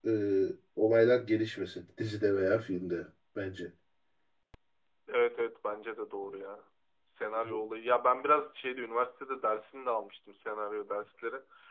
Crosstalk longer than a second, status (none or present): none